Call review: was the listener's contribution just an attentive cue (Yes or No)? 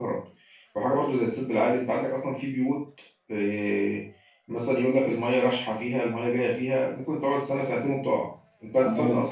Yes